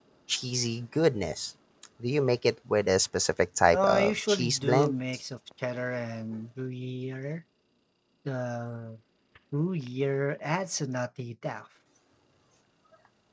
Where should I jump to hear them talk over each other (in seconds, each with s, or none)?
3.7 s